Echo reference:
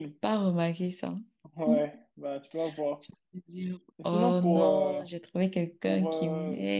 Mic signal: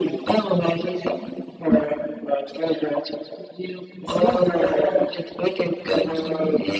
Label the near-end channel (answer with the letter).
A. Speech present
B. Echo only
B